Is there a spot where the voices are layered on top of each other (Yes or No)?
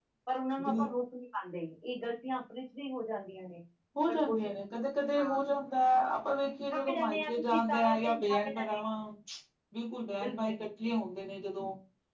Yes